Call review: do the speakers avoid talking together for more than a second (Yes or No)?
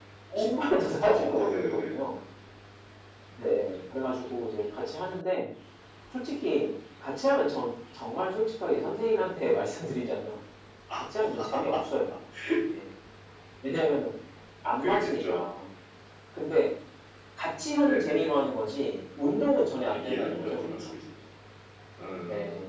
No